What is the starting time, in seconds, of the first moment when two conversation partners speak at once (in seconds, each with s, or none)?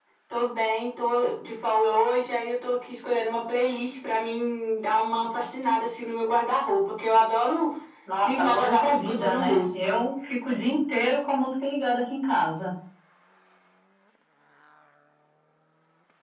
8.2 s